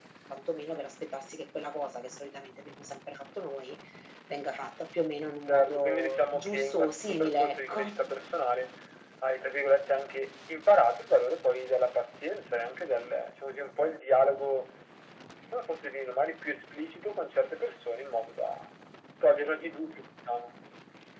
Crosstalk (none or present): present